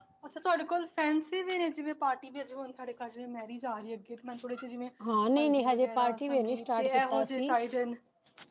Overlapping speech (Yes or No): Yes